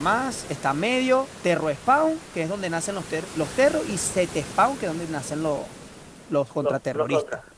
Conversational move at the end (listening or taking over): taking over